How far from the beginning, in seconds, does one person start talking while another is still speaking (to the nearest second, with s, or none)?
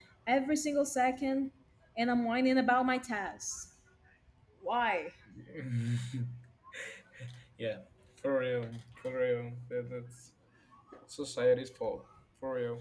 none